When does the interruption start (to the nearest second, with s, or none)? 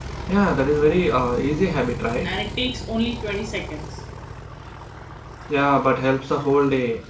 none